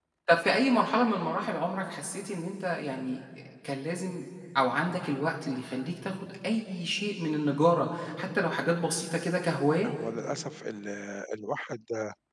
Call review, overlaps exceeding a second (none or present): none